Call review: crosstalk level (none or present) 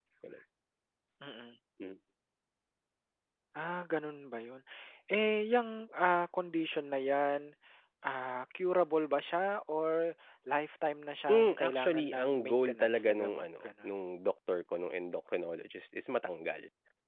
present